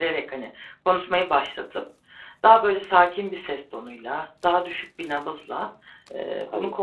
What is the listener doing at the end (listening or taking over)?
listening